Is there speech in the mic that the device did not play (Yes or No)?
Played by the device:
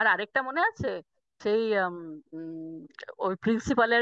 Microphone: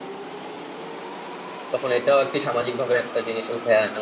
Yes